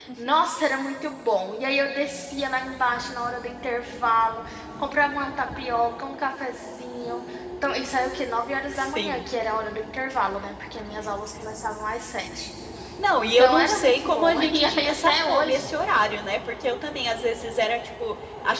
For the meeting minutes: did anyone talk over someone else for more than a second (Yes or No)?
Yes